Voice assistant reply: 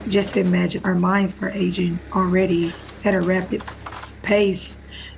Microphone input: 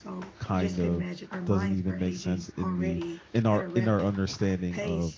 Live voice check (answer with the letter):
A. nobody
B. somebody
B